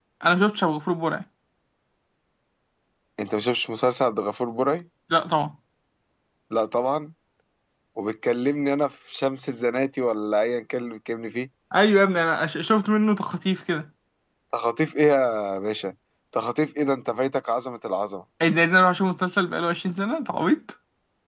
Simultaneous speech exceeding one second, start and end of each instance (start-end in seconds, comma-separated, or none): none